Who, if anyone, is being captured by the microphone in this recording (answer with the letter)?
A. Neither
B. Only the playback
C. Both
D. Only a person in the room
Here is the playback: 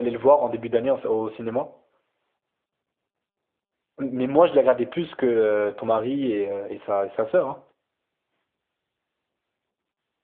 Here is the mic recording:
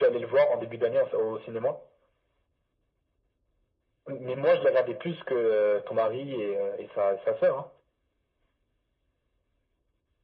B